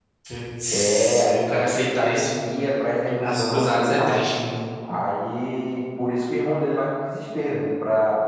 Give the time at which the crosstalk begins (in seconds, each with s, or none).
0.7 s